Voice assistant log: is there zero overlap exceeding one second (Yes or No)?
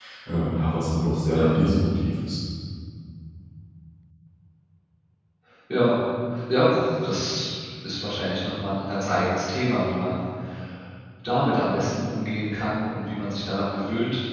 Yes